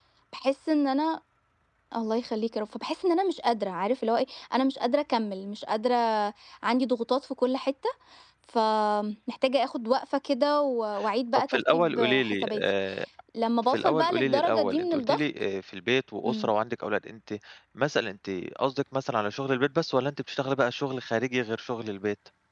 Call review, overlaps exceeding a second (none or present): present